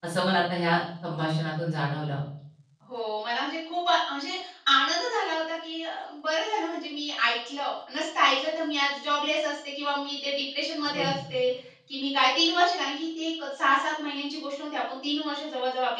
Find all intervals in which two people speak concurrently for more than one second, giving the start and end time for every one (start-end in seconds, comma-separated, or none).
none